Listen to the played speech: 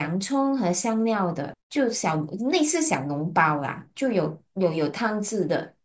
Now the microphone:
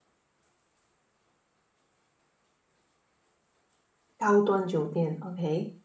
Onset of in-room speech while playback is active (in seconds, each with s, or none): 4.2 s